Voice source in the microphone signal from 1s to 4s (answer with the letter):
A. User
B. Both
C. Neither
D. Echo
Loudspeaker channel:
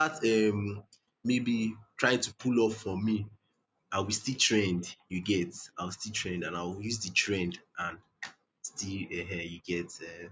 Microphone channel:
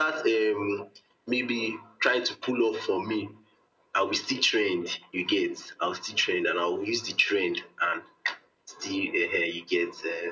D